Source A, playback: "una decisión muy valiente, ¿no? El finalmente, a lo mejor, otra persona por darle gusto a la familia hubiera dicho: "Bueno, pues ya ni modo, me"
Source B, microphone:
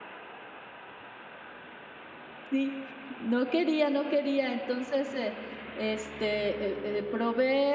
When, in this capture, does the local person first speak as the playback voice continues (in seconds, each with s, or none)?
2.5 s